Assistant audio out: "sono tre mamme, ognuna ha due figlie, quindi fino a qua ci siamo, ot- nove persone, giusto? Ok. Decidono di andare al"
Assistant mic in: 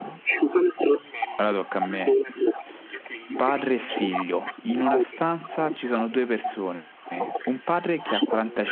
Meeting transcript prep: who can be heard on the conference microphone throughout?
both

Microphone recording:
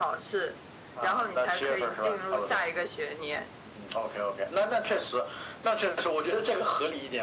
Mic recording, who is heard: echo only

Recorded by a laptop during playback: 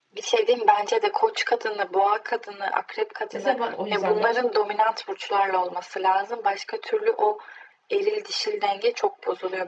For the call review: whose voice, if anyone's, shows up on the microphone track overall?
both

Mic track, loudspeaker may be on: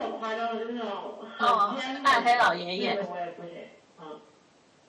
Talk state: both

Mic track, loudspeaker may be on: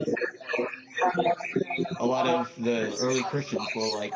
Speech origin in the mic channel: both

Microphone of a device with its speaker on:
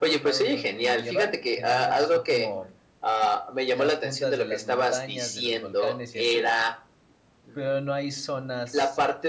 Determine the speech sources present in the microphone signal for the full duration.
both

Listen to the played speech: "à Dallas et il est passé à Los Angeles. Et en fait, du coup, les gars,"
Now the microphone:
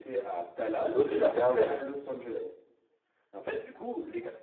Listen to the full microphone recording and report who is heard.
both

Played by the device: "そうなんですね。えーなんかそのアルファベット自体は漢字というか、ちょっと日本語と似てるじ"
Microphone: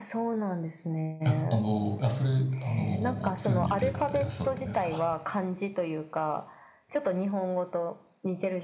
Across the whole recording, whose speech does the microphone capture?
both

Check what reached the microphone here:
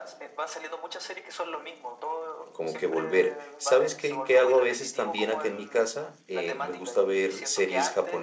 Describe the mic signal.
both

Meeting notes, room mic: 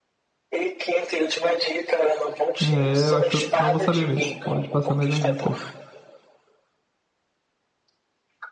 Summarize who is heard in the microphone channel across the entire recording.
both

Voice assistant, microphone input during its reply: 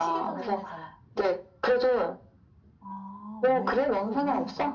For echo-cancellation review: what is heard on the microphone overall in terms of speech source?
both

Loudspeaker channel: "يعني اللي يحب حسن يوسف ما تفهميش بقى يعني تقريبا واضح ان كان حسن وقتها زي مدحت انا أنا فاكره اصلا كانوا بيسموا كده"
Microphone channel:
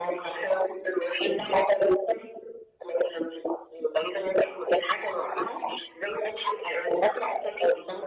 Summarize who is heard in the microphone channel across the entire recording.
echo only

